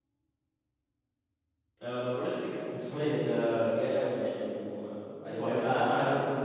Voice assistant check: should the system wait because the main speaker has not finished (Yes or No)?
No